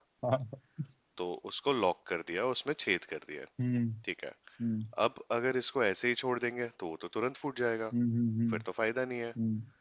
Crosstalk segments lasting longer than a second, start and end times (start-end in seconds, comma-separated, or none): none